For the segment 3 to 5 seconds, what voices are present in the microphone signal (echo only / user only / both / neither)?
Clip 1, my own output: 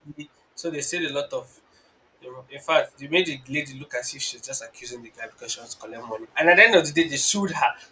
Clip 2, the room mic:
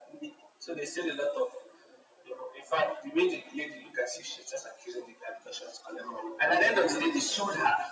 echo only